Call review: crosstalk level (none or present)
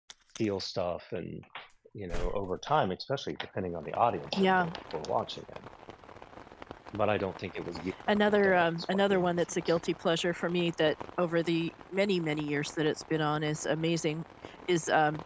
present